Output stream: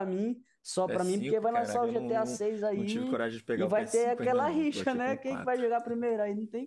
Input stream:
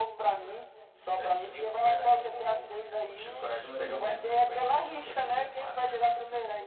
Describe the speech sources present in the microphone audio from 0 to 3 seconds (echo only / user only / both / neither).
echo only